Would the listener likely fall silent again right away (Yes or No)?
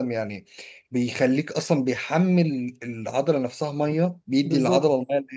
No